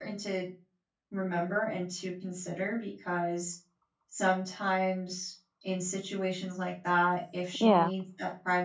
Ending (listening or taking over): listening